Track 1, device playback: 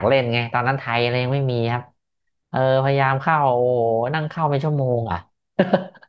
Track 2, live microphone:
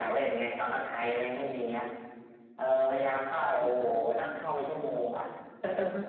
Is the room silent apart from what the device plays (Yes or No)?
No